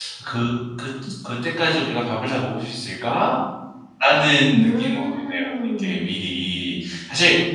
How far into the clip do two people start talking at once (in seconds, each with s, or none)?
4.6 s